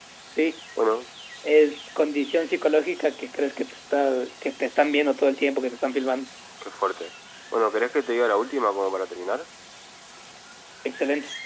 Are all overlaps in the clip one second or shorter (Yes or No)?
Yes